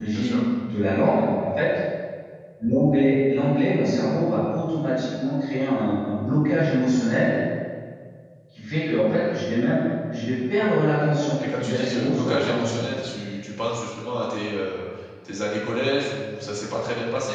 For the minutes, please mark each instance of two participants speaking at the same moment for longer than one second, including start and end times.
11.6-12.8

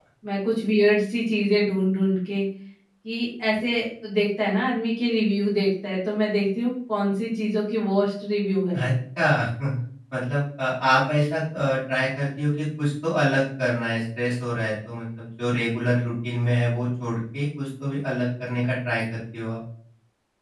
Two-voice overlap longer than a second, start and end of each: none

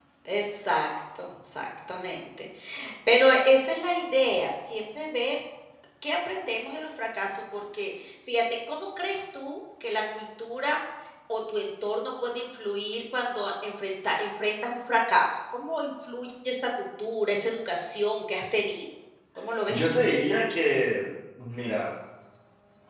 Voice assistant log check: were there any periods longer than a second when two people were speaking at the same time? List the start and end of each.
none

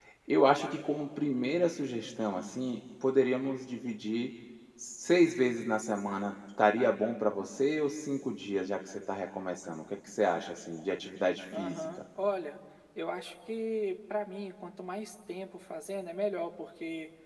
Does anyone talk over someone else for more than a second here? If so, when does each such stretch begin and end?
none

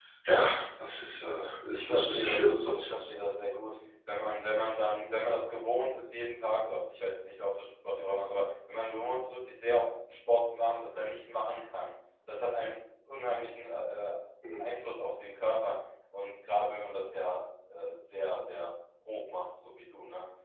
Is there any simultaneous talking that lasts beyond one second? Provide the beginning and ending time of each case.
1.7-3.0

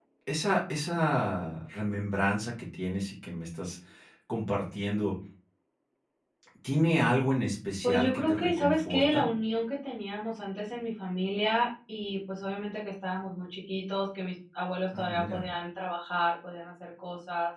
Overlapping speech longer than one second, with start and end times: 7.8-9.3

